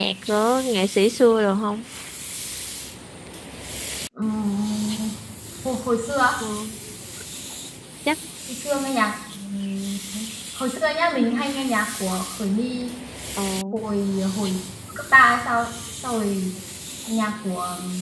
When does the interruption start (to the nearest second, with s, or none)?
none